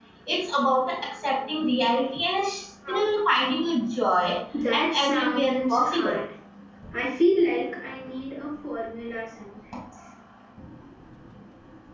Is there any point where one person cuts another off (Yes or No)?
Yes